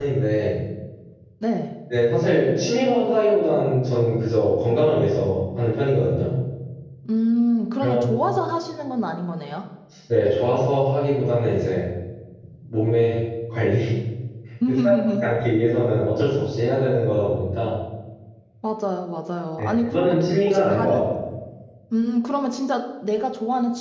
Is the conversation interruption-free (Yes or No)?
No